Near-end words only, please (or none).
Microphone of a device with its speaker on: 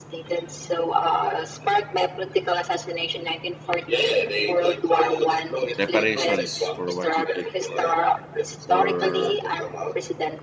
Reparations for what you did for for